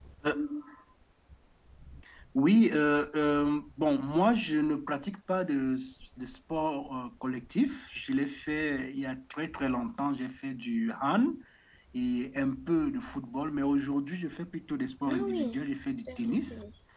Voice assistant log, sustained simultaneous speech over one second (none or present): present